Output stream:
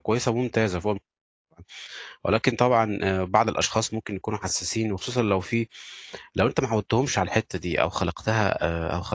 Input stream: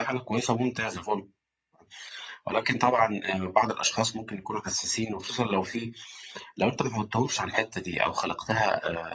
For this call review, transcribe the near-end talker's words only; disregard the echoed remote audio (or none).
none